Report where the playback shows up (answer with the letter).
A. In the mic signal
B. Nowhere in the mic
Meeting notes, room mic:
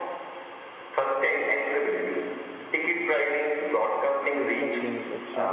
A